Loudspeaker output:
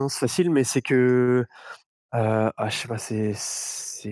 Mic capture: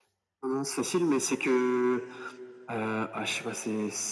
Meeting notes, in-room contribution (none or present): none